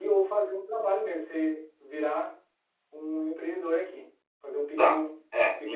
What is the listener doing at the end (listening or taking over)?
taking over